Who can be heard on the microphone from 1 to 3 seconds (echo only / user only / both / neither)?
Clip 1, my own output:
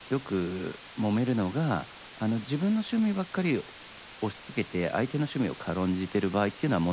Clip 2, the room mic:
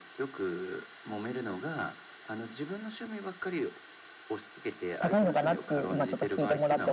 echo only